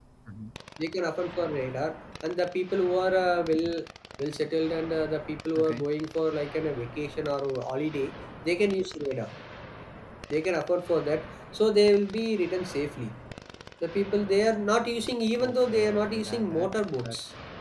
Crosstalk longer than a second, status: present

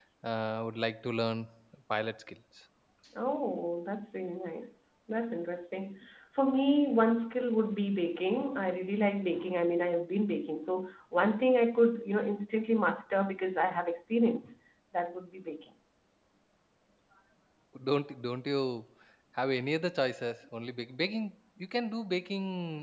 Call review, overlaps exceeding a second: none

